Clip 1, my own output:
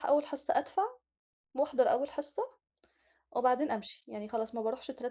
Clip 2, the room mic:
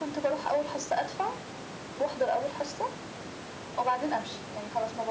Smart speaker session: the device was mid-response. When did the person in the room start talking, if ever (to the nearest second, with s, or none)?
none